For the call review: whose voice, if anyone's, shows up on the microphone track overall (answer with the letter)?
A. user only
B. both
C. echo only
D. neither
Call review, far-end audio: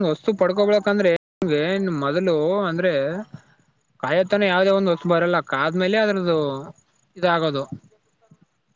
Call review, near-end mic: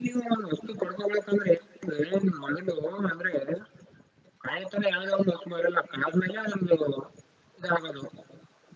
C